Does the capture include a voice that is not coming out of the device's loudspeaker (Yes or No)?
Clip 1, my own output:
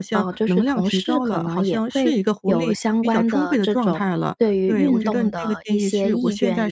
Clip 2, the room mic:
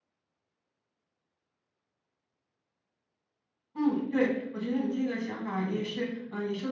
Yes